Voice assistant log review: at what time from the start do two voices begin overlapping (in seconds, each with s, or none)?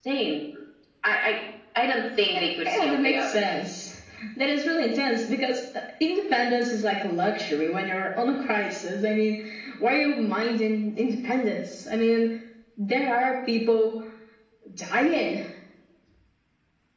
2.3 s